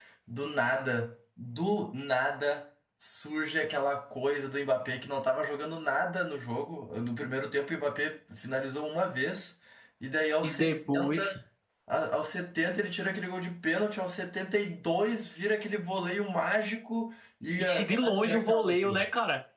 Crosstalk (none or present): present